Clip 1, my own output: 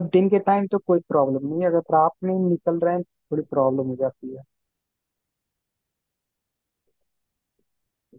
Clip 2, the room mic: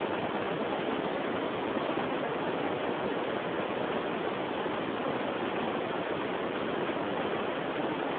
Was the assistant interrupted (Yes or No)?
No